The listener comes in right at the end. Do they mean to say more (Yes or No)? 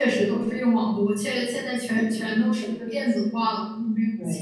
Yes